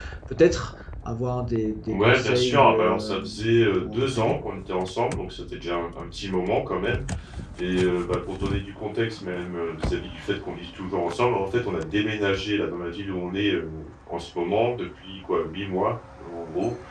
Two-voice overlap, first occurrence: 2 s

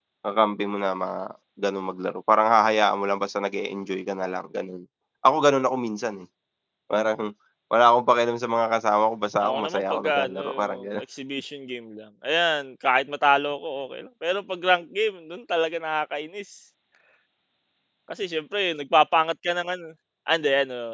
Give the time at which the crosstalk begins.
9 s

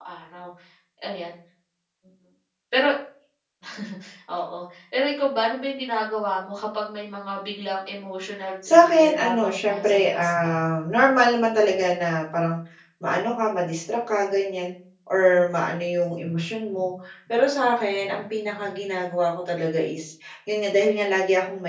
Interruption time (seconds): 9 s

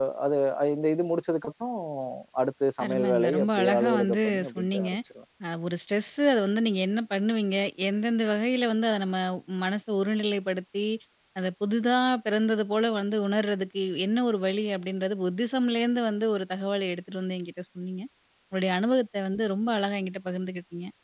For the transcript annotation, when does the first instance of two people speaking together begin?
3 s

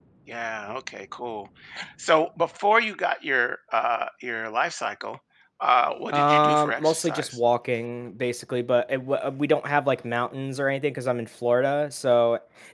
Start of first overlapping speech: 6 s

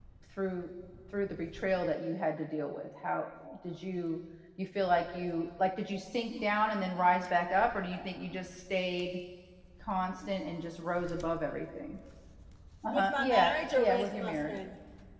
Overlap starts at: 13 s

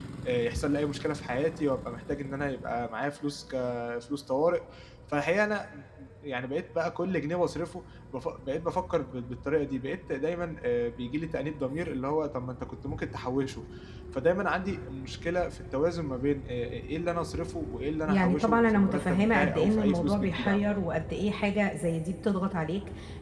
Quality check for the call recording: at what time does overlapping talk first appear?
18 s

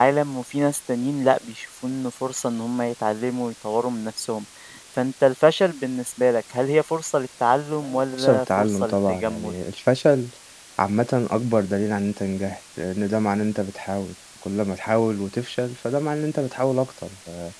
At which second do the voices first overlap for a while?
8 s

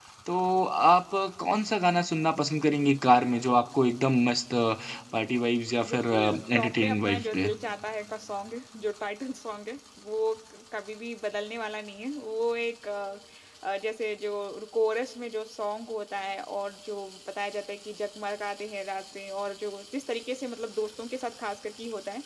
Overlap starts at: 6 s

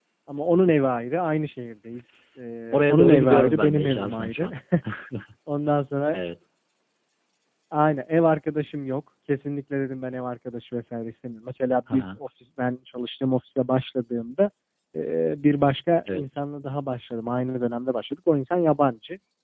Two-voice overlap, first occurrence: 3 s

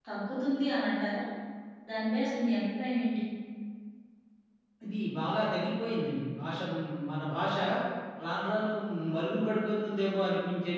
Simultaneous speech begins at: none

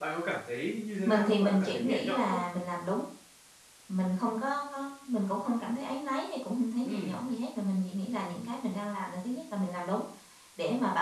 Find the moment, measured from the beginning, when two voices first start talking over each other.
1 s

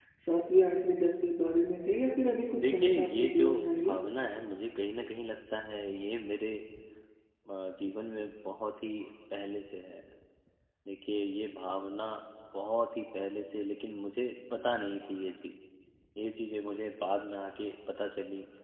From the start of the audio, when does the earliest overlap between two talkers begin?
3 s

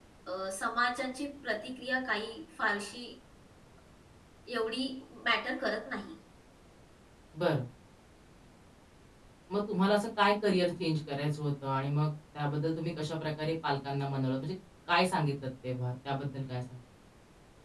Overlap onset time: none

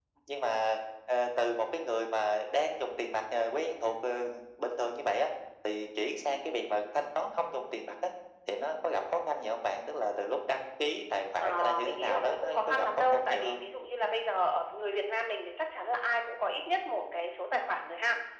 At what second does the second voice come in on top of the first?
11 s

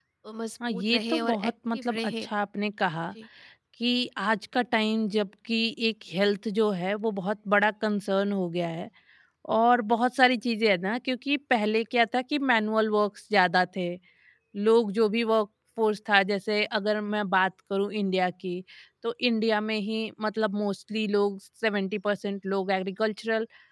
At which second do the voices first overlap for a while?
1 s

